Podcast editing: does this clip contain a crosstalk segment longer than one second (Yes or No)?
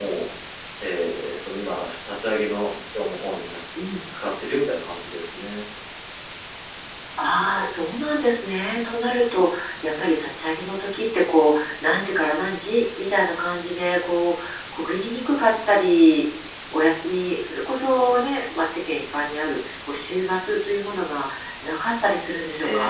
No